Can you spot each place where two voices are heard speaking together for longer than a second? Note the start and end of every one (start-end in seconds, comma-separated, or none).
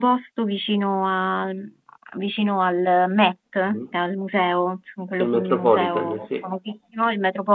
5.2-6.5